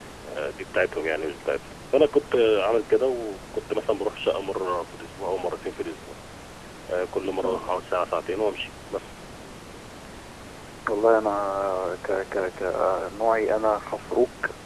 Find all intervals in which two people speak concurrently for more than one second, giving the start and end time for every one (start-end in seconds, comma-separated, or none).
none